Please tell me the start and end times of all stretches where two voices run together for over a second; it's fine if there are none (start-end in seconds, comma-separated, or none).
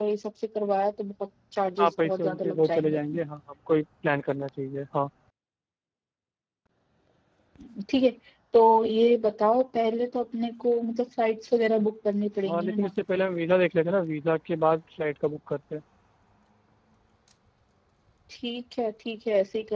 1.8-3.2